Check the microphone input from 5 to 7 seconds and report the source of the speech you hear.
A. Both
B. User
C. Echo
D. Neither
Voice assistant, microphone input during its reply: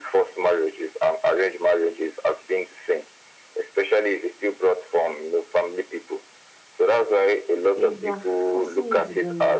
C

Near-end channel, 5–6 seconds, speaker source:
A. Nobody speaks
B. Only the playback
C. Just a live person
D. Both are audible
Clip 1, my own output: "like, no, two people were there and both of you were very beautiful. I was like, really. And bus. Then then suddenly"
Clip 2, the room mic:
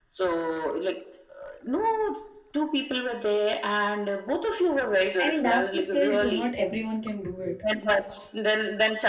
D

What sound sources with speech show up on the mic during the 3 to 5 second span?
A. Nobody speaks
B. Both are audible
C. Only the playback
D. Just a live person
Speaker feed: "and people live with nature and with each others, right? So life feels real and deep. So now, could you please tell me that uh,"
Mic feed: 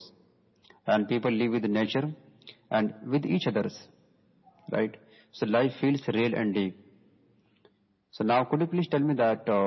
C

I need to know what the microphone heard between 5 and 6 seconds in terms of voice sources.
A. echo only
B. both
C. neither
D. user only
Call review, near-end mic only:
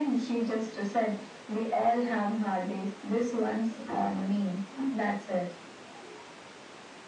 A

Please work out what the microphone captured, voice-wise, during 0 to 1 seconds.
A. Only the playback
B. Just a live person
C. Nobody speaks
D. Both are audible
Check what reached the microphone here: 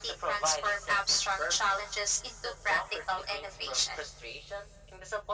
A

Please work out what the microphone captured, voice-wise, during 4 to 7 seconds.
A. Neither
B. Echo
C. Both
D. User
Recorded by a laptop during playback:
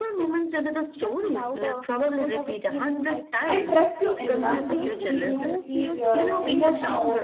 C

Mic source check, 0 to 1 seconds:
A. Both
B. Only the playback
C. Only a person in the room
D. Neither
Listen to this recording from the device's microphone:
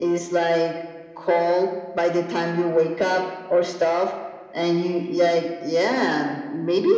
B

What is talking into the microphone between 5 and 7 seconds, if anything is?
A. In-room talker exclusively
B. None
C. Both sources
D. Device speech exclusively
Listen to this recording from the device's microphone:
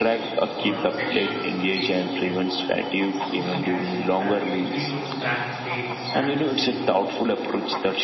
C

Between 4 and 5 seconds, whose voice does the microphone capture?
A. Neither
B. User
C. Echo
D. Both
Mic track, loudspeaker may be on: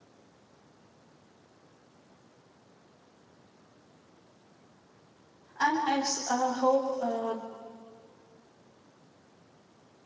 A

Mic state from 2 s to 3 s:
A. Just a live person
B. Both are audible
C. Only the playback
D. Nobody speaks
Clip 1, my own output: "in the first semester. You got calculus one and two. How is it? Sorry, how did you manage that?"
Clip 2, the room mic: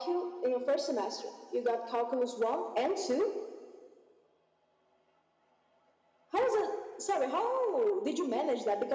C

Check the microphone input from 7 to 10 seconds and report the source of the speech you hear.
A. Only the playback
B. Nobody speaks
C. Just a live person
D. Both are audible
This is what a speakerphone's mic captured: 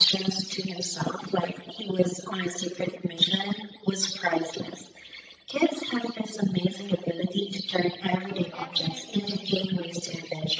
D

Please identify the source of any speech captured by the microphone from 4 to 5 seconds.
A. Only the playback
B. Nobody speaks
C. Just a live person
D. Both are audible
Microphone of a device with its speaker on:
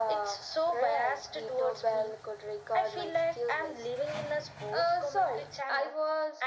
A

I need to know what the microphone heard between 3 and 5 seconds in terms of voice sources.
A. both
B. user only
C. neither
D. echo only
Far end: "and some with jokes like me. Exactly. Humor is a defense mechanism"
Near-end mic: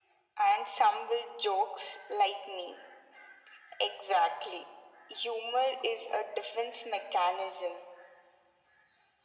D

